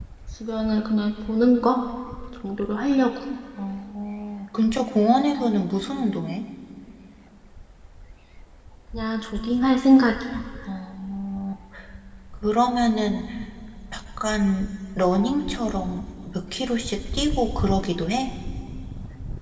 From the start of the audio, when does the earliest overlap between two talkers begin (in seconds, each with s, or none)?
none